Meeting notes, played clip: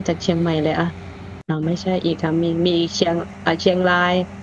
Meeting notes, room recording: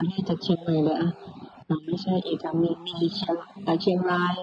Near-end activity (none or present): none